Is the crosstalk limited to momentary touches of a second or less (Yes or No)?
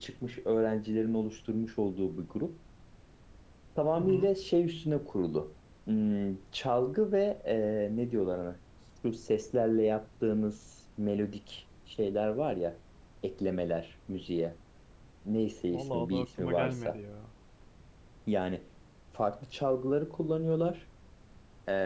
No